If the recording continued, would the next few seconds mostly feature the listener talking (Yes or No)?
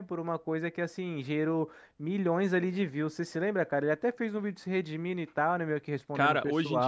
Yes